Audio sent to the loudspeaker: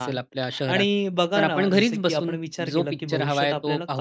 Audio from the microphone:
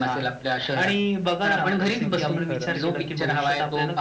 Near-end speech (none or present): present